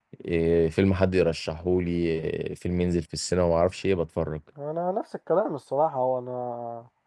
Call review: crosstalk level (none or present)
none